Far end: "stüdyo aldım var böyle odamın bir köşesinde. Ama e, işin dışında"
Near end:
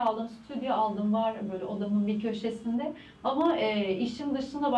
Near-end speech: none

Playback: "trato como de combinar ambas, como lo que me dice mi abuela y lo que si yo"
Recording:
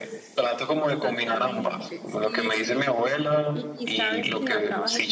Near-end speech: present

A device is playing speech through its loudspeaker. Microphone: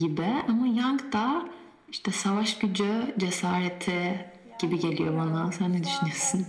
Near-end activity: present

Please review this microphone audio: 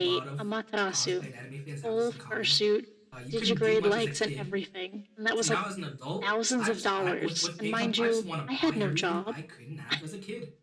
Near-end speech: present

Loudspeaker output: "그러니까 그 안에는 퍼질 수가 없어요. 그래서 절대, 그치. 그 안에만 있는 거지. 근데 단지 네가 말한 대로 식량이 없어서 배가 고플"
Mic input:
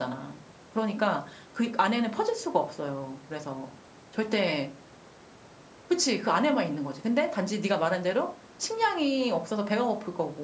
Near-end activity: none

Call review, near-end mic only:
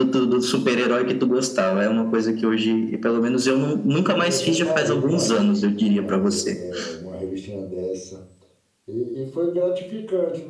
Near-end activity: present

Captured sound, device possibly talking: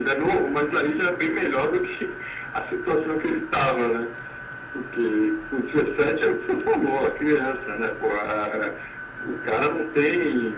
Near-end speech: none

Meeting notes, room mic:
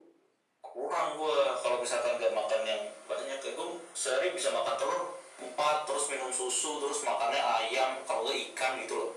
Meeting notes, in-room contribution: none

